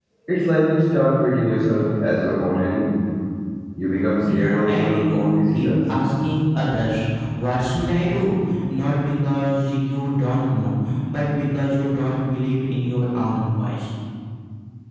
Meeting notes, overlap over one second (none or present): present